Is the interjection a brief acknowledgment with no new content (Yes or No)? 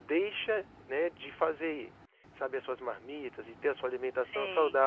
Yes